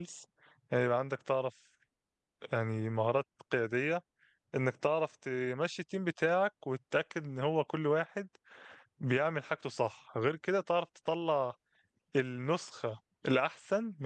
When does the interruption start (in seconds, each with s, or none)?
none